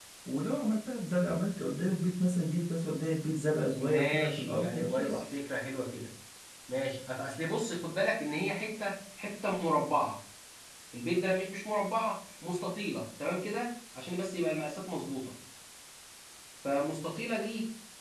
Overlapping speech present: Yes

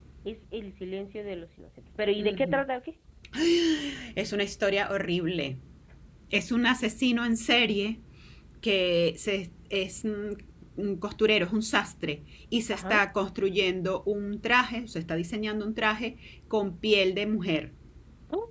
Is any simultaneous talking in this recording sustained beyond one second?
No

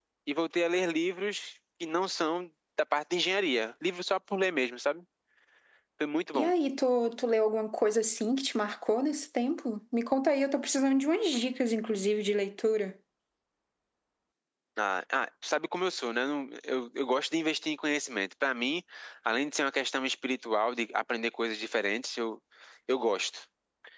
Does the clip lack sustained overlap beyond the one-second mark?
Yes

